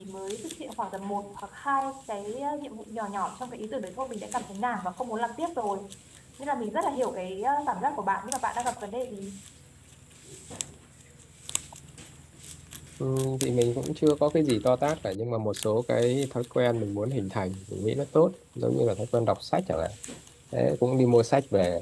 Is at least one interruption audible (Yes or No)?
No